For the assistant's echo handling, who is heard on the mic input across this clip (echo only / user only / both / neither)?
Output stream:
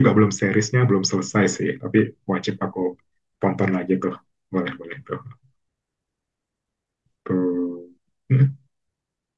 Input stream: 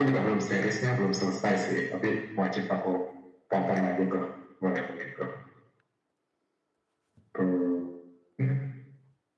echo only